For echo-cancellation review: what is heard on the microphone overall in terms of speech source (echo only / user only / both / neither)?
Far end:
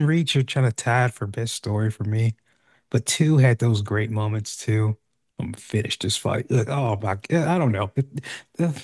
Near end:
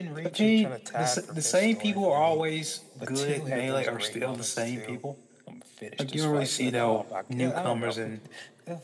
both